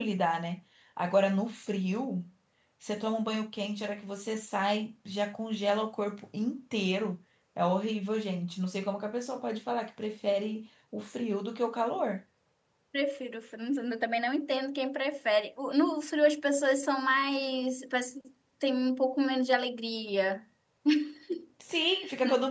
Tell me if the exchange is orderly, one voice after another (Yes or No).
Yes